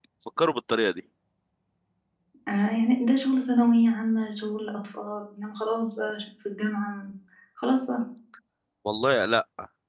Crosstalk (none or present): none